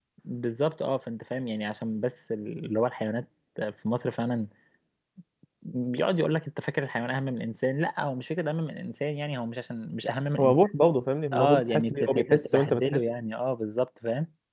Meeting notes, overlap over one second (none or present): present